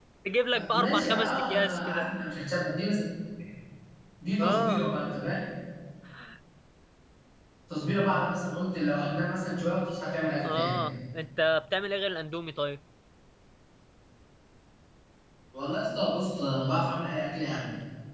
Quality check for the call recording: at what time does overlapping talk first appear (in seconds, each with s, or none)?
0.7 s